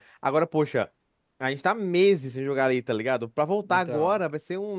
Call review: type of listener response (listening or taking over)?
listening